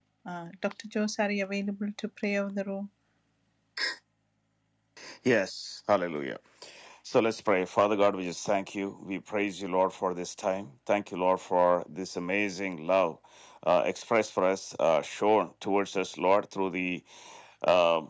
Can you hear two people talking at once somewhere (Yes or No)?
No